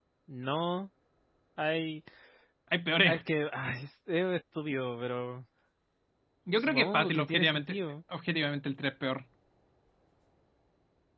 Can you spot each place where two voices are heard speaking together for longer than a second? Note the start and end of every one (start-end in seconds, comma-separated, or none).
6.6-7.8